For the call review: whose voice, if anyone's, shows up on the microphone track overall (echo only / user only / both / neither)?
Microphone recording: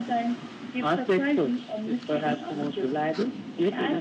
echo only